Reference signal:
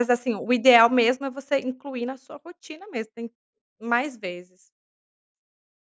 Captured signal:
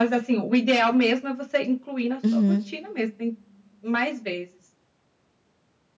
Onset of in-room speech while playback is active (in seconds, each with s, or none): 2.2 s